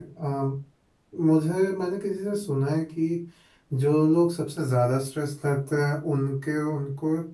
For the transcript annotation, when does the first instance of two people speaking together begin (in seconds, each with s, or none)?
none